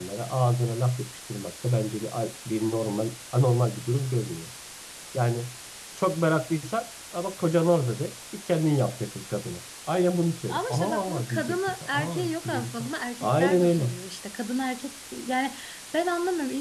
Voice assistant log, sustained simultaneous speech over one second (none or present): present